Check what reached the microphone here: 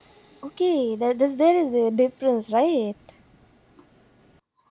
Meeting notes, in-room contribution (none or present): present